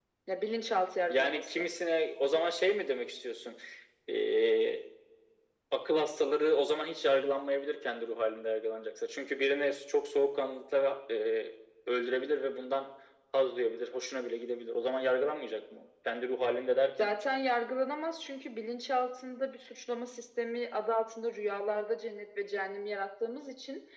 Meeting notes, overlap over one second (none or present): none